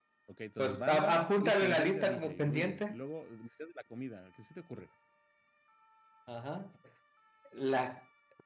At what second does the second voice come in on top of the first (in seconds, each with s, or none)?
0.6 s